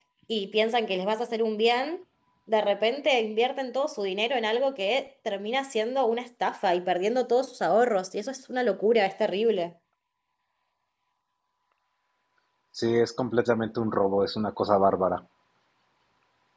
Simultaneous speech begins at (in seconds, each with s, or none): none